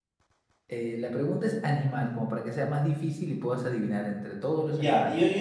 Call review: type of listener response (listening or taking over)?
taking over